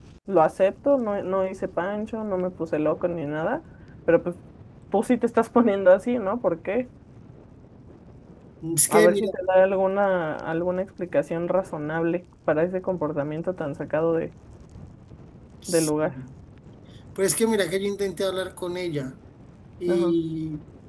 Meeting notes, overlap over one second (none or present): none